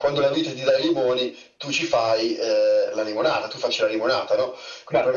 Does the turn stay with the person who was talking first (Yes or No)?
Yes